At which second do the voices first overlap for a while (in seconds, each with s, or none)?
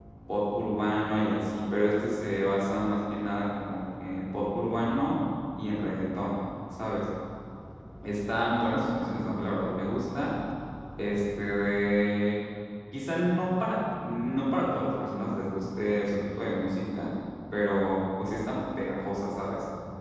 none